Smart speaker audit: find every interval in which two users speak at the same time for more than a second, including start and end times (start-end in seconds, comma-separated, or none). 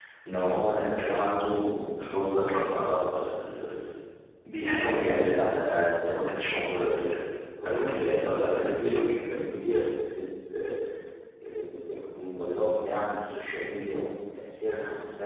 7.6-9.0